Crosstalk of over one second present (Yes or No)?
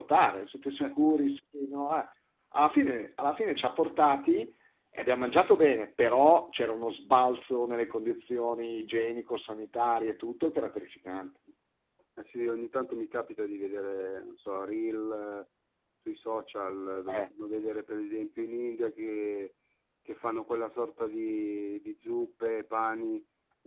No